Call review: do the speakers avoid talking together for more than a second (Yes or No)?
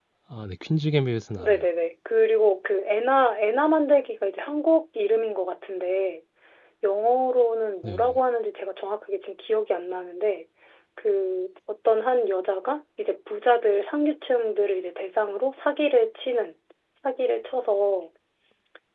Yes